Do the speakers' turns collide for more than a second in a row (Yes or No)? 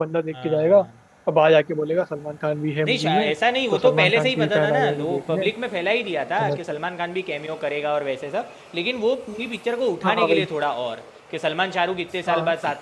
Yes